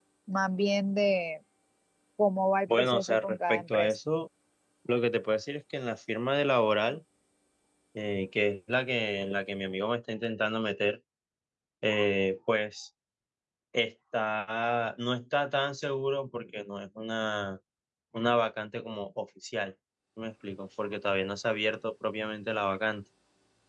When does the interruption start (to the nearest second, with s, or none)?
3 s